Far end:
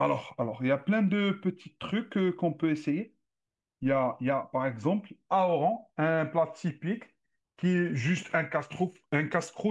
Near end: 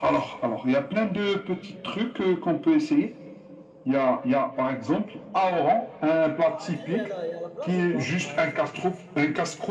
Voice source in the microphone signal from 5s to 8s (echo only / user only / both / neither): both